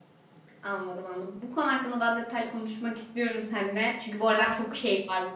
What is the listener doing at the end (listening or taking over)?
listening